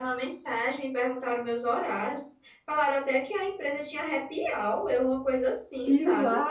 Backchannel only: No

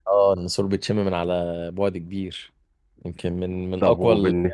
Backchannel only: No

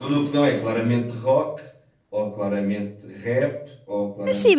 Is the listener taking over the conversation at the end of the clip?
Yes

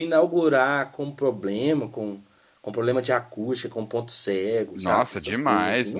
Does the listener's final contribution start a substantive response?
Yes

